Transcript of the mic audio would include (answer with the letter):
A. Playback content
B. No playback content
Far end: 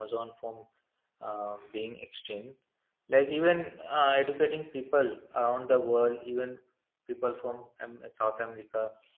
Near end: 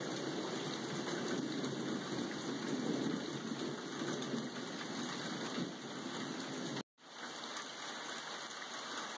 B